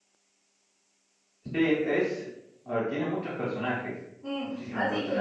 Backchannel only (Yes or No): No